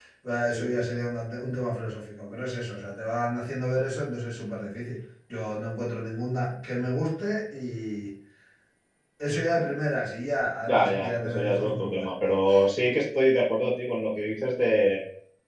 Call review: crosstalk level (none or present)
present